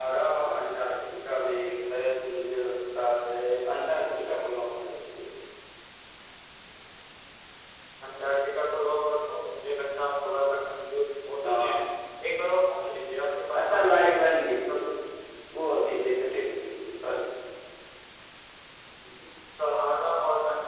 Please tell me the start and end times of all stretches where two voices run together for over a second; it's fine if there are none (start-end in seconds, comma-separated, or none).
13.6-14.8